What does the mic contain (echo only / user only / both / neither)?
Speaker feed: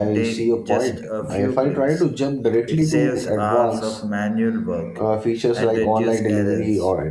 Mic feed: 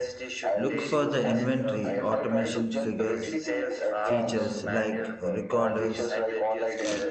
both